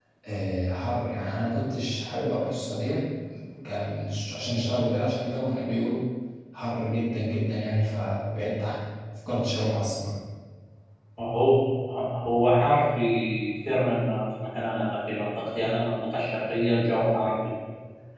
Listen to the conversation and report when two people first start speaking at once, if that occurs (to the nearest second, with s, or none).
none